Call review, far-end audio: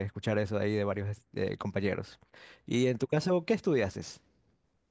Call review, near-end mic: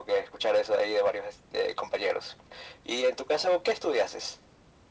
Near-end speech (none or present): none